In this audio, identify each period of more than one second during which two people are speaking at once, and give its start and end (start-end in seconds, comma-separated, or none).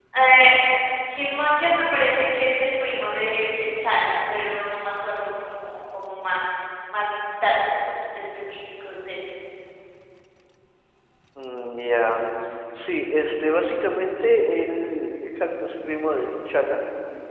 none